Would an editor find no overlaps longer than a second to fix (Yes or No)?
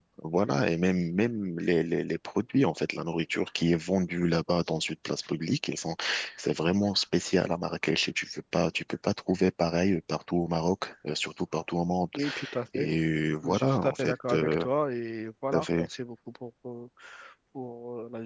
No